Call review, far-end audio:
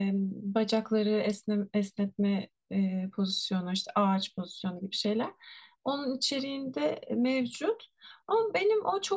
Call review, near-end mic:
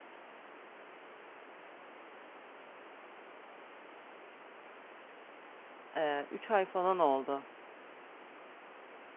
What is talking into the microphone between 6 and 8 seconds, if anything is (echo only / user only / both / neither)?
user only